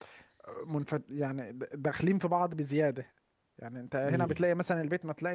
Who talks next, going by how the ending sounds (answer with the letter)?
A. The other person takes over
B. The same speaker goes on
B